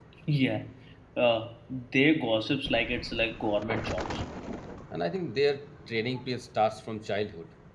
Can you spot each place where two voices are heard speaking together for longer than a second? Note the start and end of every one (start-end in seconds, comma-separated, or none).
none